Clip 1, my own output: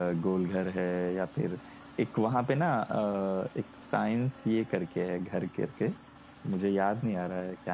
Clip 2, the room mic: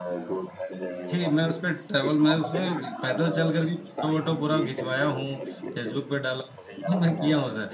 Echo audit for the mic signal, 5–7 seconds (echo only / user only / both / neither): both